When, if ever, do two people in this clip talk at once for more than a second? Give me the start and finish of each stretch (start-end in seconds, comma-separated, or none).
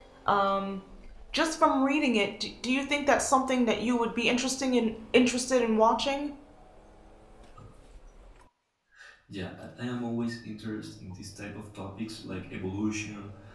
none